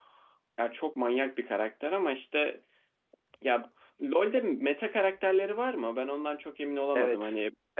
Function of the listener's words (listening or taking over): taking over